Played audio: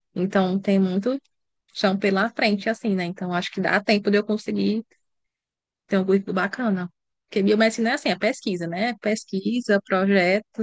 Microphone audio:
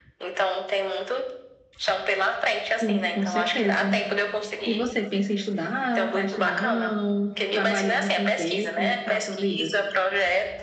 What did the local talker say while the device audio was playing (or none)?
sim, com certeza. E você pensa em estudar? Tá estudando? Trabalhando com o quê? Como é que tá a tua vida?